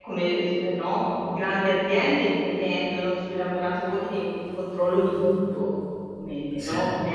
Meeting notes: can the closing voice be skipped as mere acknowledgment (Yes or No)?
Yes